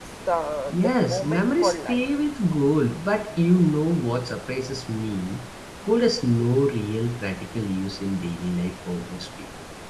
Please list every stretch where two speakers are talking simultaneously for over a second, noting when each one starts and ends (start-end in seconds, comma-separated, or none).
0.7-2.0